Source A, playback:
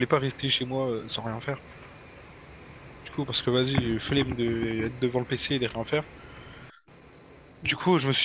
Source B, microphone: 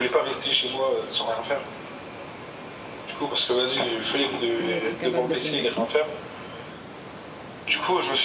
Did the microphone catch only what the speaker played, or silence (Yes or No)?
No